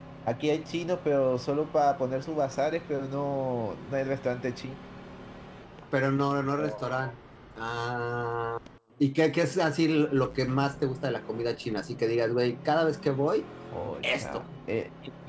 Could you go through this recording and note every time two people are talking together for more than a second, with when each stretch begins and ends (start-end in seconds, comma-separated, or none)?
none